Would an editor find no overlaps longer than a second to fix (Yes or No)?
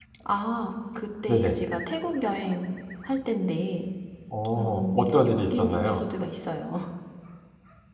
No